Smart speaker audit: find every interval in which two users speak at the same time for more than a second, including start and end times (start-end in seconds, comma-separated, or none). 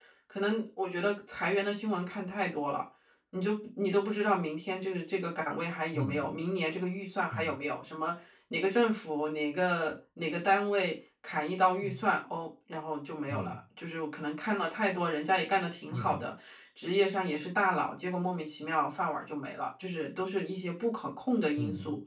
none